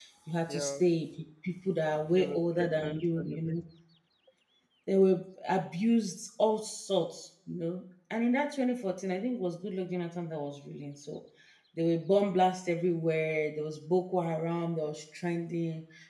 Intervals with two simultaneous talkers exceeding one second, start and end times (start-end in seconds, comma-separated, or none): 2.1-3.5